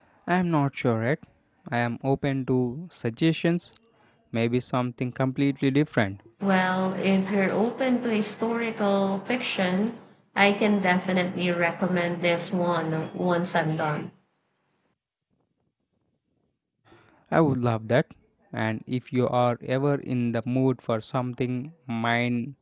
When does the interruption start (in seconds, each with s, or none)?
none